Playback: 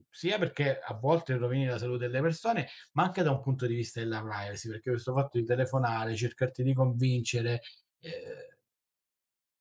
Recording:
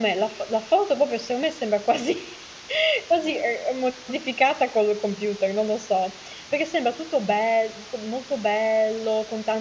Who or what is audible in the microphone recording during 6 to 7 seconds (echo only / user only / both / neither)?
user only